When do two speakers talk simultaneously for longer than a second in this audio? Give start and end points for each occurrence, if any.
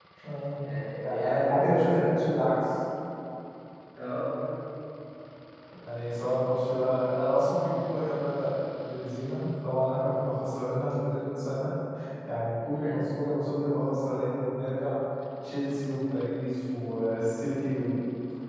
1.0-2.3

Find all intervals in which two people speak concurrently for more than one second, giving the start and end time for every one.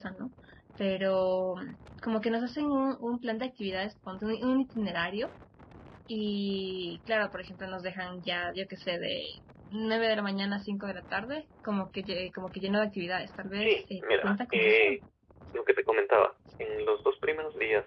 13.6-15.0

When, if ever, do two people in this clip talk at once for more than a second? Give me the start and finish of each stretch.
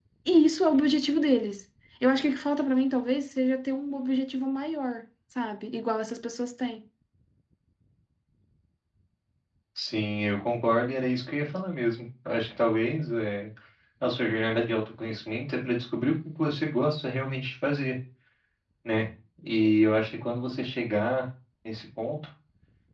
none

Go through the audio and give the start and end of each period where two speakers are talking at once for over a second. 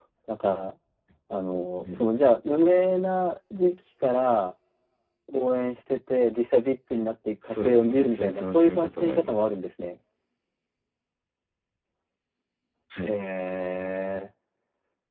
7.4-9.6

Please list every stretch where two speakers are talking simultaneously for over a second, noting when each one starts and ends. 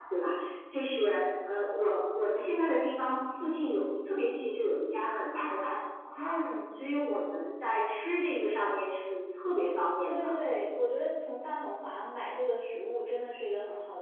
none

